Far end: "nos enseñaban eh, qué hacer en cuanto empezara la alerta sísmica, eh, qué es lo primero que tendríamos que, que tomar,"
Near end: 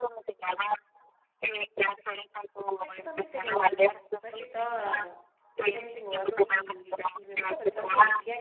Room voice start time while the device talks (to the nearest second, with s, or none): 3 s